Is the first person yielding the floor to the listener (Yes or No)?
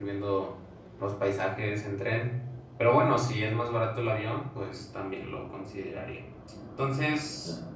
No